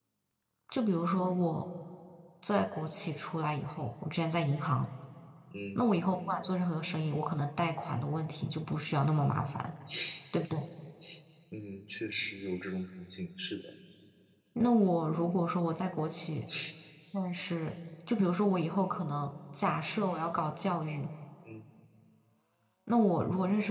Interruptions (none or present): none